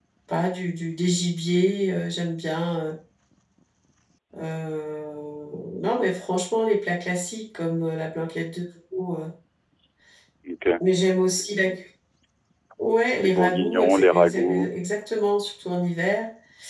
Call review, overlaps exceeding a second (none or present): present